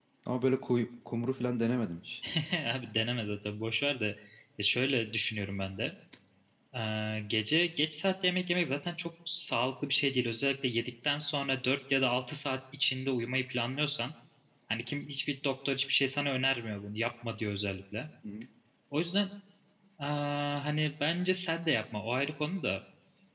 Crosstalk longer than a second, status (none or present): none